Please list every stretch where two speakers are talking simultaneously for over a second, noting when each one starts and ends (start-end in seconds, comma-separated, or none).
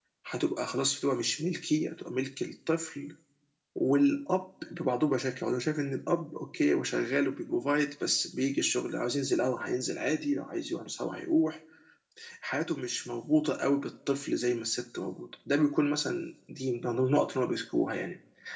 none